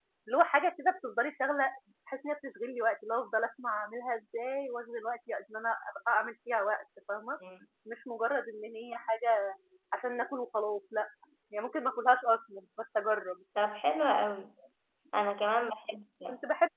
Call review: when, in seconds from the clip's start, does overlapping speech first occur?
none

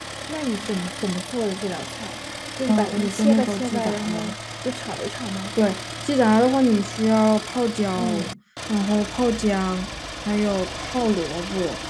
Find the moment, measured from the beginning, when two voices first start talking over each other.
2.7 s

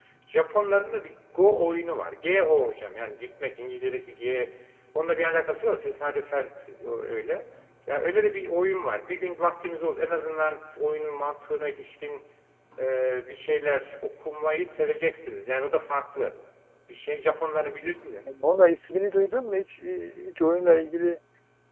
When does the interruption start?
none

